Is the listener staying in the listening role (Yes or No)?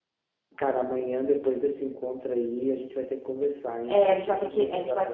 No